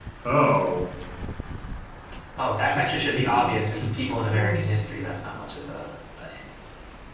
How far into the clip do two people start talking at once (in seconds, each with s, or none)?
2.6 s